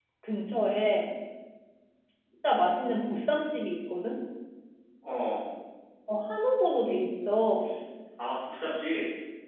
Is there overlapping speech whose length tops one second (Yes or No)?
No